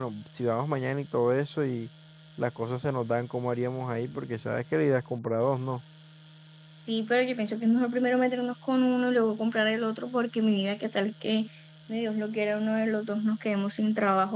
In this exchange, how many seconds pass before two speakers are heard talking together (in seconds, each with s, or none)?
none